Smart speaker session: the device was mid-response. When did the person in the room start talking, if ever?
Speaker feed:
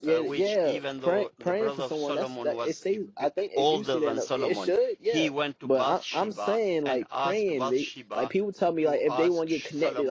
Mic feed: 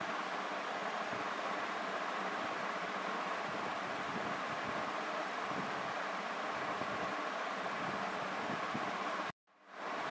none

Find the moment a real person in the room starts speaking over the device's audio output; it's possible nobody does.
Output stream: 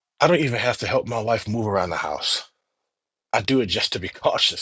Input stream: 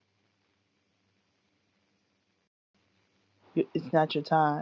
3.5 s

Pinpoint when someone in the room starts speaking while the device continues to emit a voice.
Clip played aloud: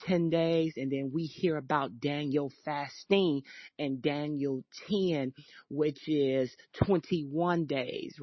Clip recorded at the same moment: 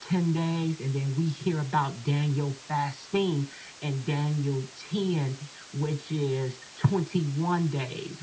none

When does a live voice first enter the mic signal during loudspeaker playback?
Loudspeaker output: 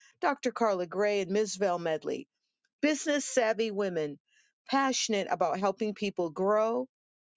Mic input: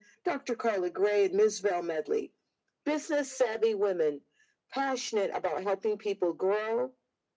none

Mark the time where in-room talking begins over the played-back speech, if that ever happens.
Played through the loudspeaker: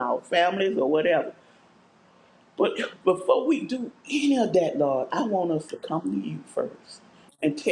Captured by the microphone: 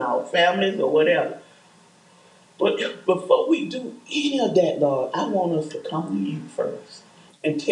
none

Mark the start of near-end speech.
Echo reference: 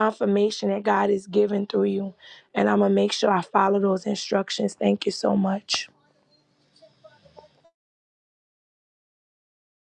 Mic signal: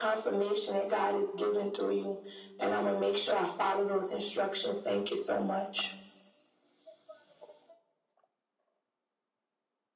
none

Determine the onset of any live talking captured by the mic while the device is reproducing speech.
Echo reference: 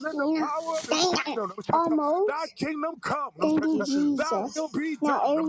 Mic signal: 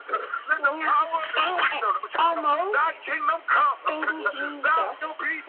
none

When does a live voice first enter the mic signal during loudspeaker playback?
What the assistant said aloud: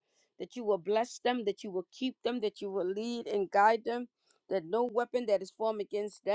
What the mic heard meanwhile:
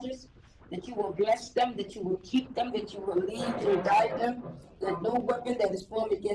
3.3 s

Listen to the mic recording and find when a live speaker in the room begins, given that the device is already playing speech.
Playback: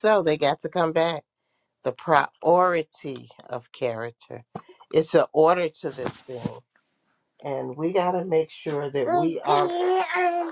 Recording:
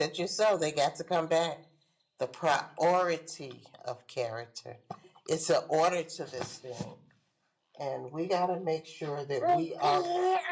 none

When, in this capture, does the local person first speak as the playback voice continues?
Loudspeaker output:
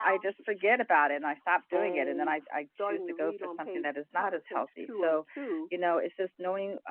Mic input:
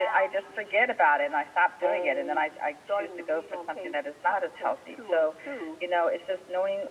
none

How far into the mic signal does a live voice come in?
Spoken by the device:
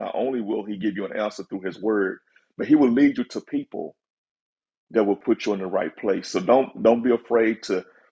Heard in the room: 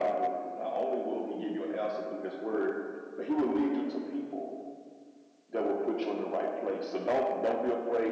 none

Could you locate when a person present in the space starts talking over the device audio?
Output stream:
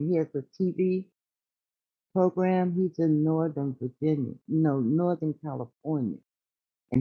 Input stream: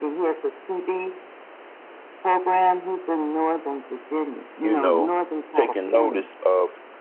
4.6 s

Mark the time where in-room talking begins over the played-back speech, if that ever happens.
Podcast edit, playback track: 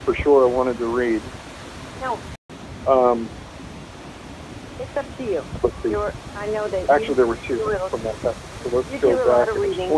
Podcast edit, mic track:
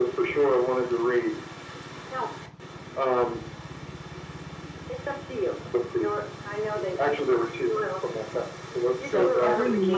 9.0 s

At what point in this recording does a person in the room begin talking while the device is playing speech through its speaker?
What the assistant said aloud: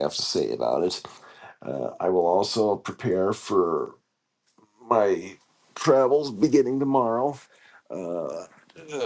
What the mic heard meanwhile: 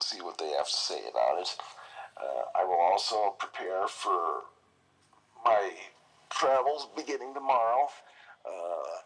none

